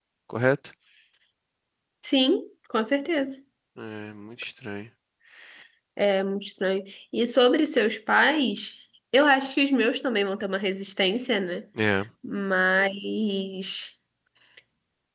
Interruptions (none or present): none